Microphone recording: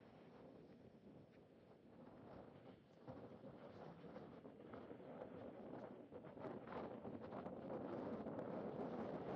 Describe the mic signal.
neither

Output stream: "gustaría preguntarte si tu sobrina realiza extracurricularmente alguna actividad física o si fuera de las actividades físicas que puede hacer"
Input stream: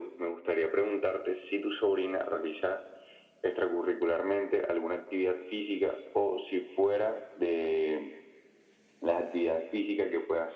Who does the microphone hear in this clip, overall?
echo only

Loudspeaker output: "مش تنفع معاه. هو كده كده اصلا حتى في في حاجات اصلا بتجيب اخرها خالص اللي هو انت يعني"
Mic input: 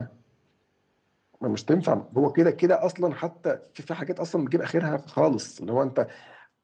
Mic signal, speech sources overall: echo only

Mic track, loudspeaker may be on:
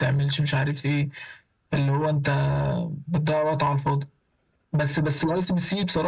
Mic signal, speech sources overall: echo only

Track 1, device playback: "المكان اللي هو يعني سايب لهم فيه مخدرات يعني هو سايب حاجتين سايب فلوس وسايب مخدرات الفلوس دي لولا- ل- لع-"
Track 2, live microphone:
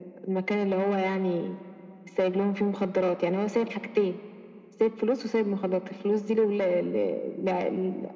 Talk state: echo only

